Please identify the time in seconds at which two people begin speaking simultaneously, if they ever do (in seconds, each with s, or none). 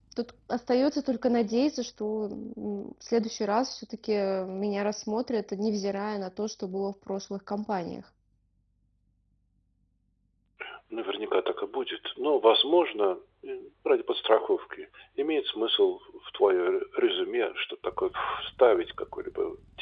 none